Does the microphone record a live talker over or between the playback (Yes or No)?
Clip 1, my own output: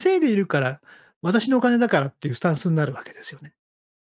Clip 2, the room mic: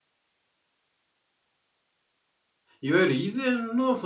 Yes